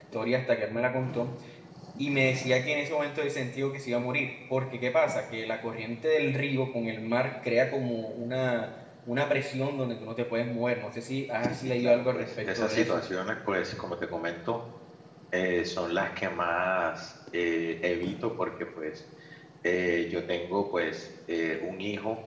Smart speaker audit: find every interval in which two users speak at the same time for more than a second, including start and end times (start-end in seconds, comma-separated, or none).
11.5-13.0